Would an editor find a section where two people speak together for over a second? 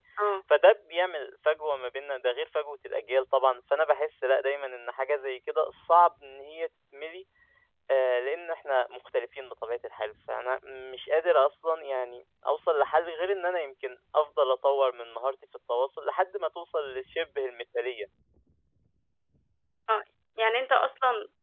No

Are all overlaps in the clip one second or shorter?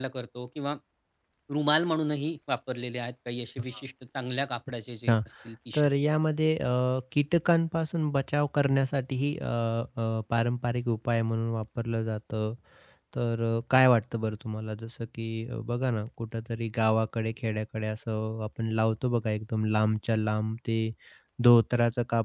Yes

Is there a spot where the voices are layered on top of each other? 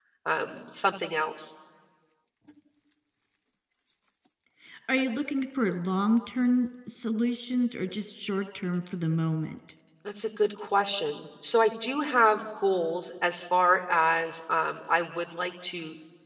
No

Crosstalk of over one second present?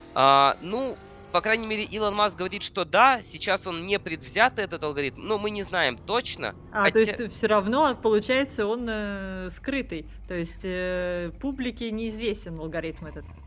No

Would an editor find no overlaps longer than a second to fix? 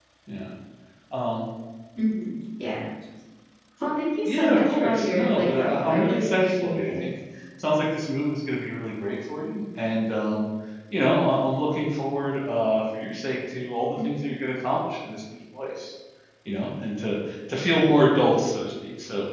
No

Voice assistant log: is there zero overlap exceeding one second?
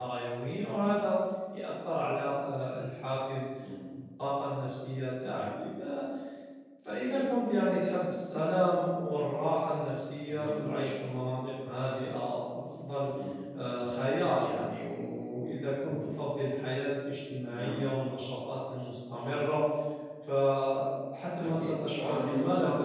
No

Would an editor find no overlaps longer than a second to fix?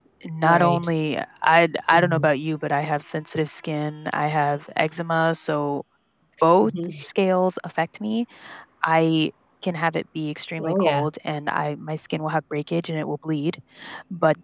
Yes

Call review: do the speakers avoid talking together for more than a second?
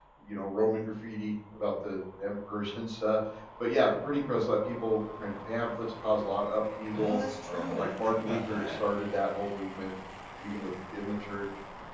No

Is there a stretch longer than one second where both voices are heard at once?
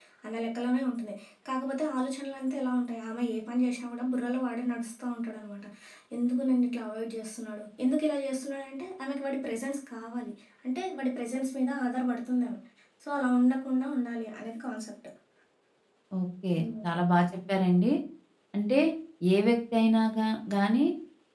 No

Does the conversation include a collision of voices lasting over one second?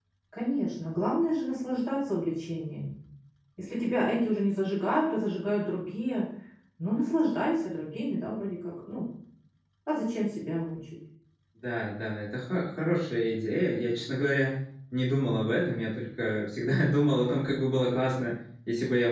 No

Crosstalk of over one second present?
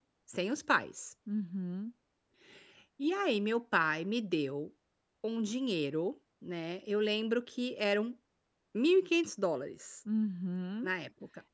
No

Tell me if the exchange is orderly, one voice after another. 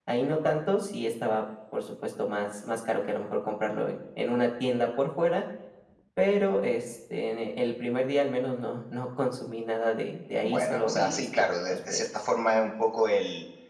No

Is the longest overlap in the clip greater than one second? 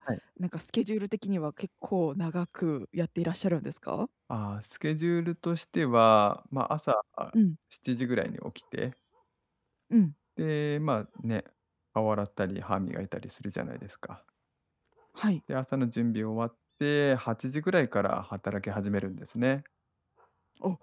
No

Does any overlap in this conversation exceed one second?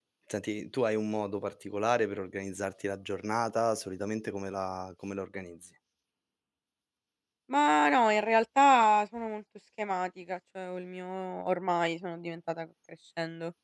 No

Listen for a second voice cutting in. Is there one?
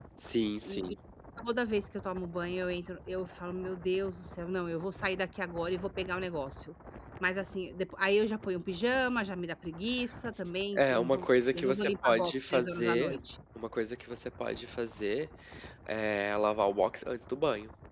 Yes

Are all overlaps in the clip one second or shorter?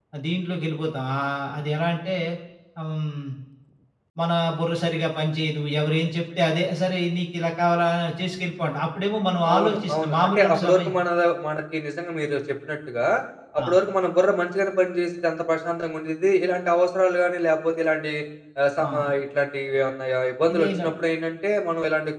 No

